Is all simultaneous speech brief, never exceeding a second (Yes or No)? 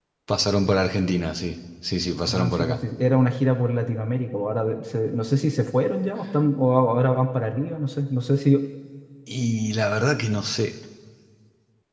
Yes